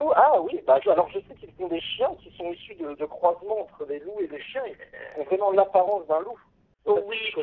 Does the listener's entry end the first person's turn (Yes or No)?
Yes